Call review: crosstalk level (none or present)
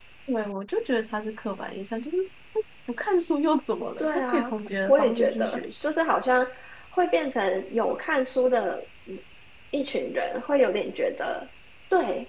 present